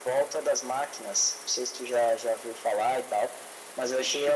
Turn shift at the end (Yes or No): No